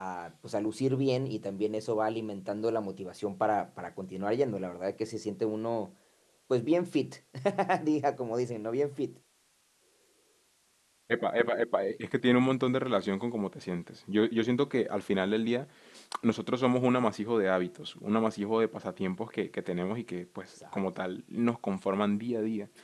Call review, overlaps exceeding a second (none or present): none